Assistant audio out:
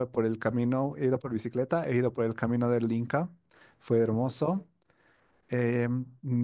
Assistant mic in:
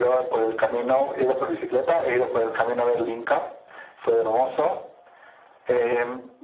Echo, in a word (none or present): present